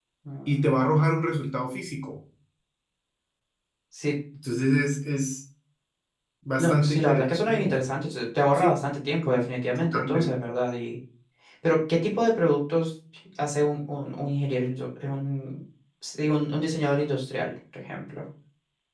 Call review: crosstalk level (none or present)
present